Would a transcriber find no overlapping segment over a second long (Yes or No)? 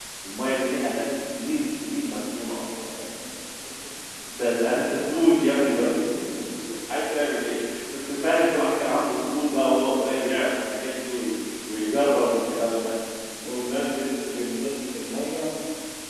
Yes